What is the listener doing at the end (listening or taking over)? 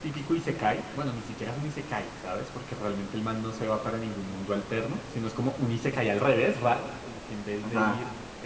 listening